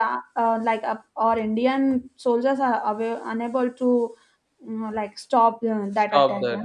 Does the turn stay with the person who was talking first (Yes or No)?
No